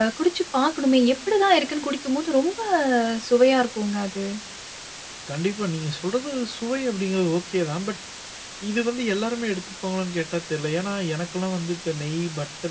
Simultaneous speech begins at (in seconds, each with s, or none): none